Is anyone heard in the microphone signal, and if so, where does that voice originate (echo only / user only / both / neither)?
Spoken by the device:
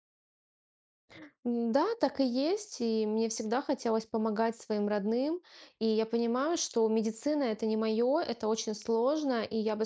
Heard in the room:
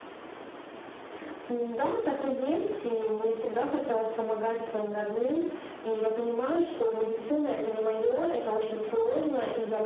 echo only